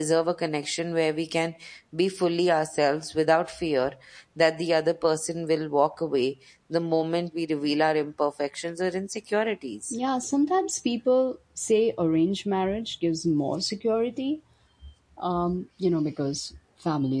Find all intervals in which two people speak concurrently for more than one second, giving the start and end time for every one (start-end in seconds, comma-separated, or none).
none